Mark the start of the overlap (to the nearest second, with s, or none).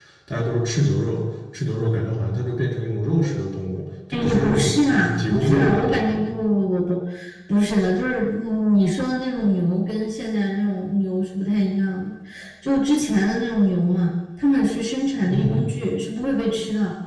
4 s